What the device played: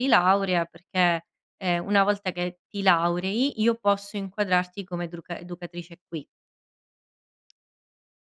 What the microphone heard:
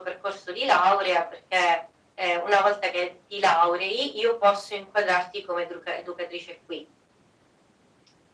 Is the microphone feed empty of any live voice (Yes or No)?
Yes